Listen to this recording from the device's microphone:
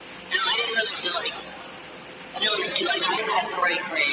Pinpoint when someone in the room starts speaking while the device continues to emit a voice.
none

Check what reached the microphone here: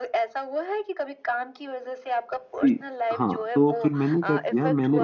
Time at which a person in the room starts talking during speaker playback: 2.6 s

